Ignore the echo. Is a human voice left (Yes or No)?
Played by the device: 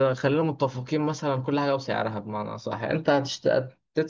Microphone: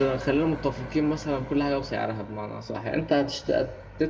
No